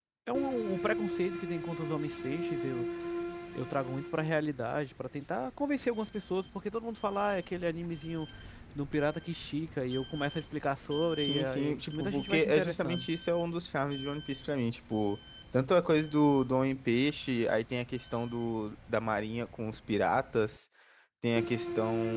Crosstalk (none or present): present